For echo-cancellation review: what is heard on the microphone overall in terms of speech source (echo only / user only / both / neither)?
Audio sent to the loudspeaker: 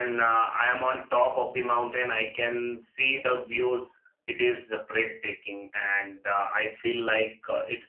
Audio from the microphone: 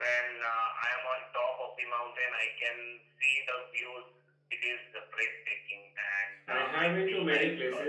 both